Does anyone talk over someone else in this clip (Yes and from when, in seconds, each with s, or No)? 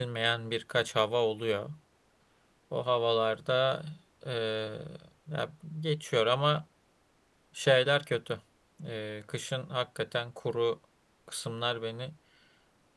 No